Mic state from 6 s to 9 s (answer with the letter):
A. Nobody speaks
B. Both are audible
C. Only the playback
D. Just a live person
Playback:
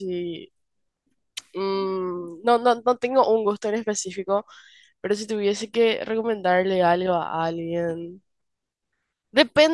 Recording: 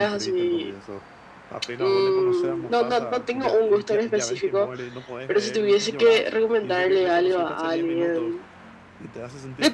B